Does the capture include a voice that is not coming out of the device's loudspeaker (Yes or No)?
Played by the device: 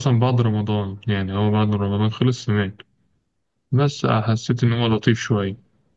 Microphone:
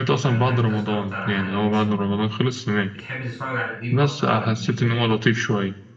Yes